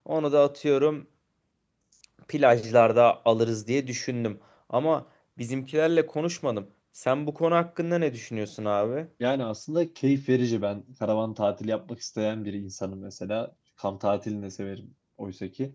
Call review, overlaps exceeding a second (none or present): none